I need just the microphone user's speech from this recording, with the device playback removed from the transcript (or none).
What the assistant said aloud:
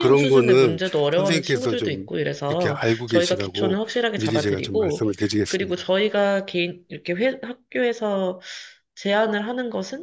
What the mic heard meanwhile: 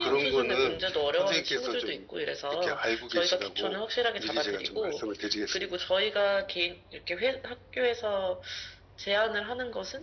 none